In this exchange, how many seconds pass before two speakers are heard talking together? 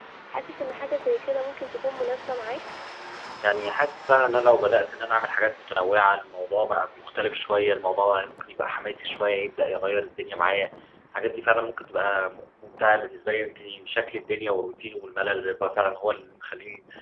none

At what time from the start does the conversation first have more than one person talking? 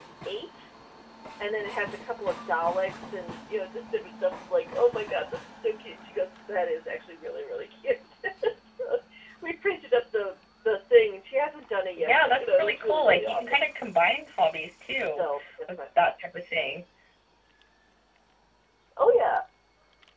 12.0 s

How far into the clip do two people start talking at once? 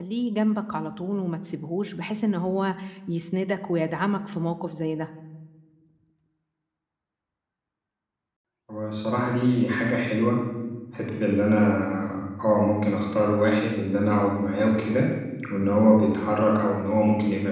none

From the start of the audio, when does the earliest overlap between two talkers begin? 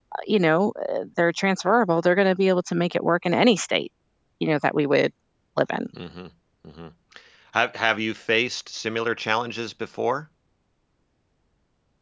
none

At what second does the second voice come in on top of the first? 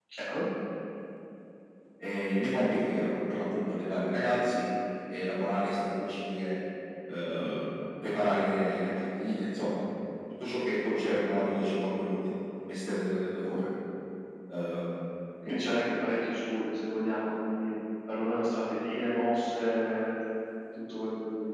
none

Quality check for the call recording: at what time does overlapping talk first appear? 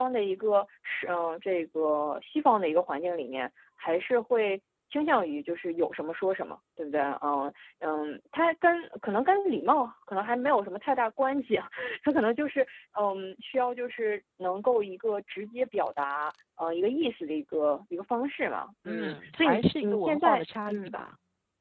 18.8 s

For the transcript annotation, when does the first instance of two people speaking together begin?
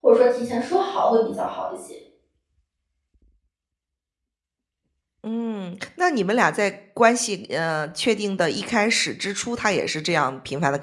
none

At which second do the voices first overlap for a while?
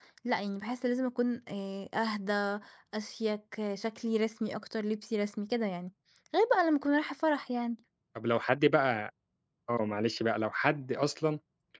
none

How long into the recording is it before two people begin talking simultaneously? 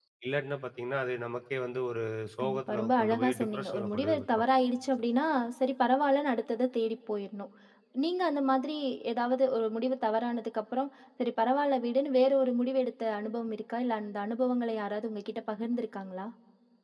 2.4 s

